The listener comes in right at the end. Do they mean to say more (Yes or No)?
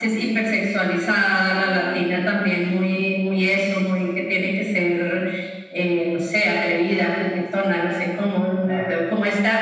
No